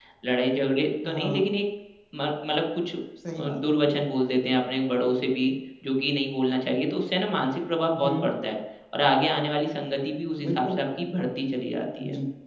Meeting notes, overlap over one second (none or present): none